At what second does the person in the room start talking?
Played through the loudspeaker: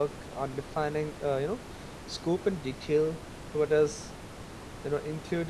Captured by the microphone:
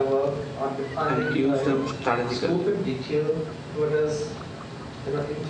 1.1 s

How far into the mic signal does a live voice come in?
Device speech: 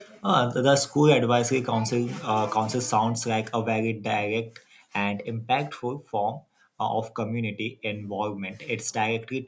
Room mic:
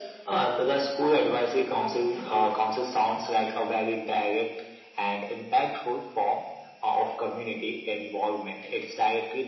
none

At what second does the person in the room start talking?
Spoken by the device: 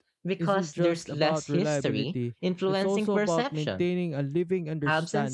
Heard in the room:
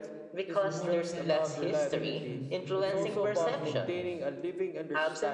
0.6 s

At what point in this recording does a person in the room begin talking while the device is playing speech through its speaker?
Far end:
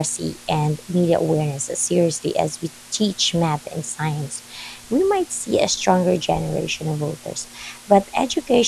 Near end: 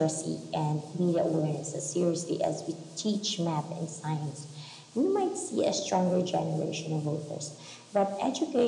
none

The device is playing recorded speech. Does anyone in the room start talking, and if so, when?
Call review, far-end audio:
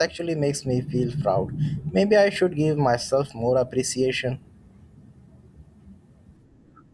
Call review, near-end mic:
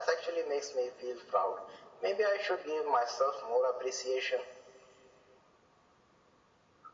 none

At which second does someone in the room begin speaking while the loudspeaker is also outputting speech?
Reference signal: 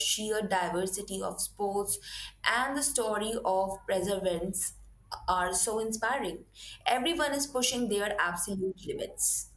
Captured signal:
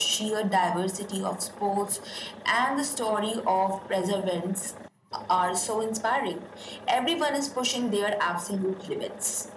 none

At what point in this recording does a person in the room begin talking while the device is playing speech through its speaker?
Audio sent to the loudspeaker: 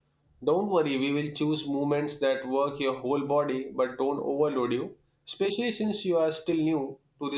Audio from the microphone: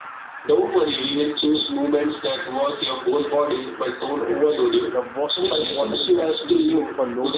4.9 s

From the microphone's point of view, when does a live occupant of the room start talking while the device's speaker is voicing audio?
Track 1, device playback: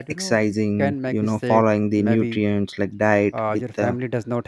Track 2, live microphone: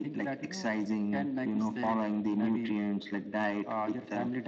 none

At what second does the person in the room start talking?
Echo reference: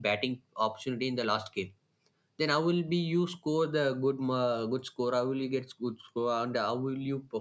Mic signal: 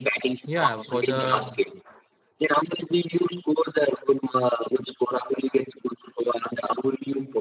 0.4 s

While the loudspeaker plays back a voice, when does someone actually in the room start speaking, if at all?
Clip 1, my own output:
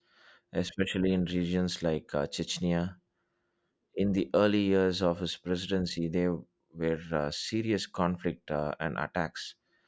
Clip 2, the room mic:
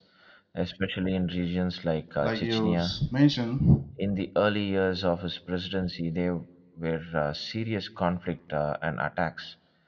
2.2 s

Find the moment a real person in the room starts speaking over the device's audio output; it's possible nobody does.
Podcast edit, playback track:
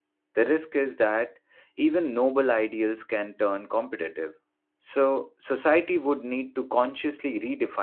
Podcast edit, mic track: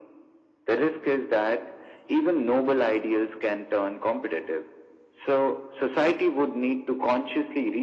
none

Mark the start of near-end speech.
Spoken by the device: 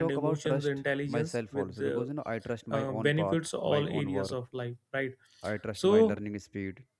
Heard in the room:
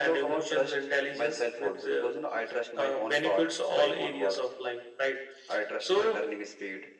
none

